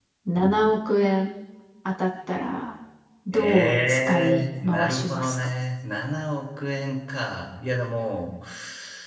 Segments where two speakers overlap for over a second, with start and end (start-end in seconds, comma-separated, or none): 3.3-5.3